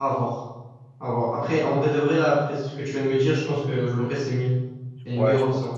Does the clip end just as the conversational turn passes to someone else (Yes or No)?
Yes